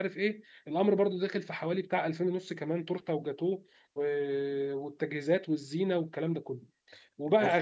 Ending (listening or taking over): listening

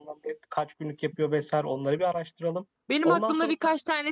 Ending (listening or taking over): taking over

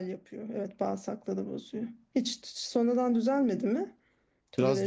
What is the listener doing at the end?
taking over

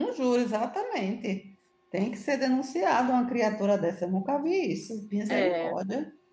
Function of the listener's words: taking over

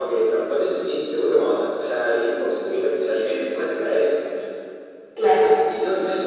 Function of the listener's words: listening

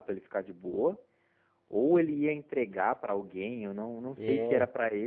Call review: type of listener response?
listening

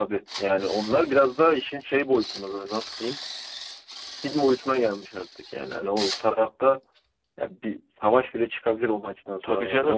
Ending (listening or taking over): taking over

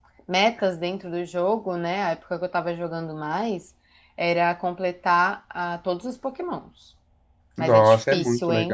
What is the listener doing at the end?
taking over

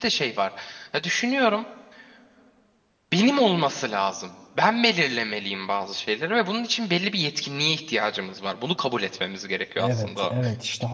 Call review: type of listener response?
taking over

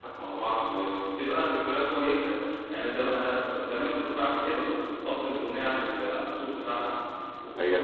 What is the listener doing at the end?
taking over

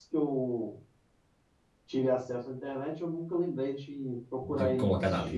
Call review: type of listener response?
taking over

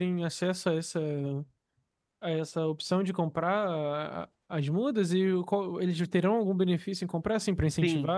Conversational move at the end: taking over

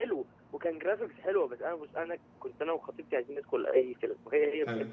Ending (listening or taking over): listening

